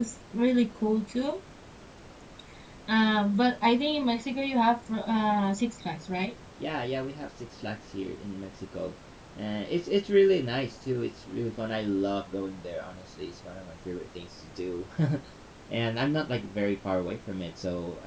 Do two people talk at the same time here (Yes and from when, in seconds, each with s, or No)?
No